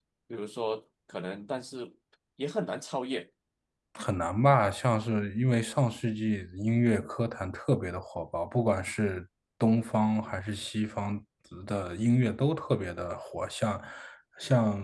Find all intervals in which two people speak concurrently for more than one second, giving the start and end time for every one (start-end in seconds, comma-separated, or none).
none